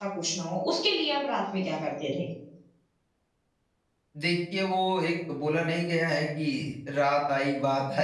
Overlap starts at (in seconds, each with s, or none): none